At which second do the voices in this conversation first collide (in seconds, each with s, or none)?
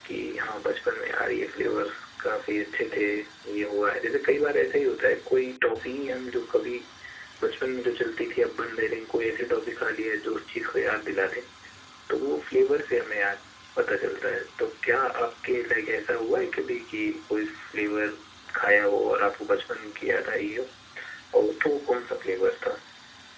none